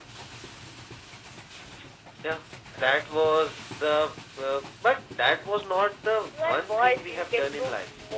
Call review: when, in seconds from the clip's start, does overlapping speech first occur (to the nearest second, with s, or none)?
6 s